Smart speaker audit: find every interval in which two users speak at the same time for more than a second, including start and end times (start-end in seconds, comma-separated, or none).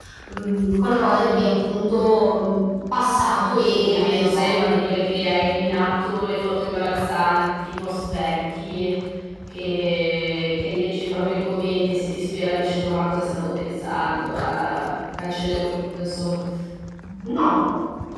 3.3-4.5